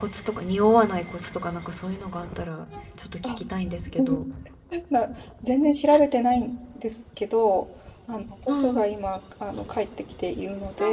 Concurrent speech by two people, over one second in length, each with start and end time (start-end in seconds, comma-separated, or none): none